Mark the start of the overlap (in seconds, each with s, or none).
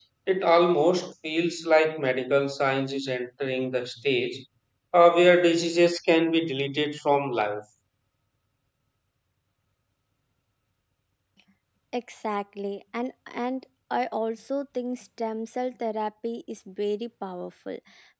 none